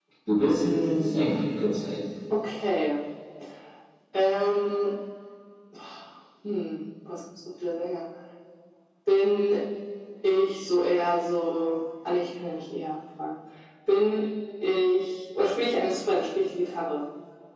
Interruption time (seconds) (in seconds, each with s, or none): none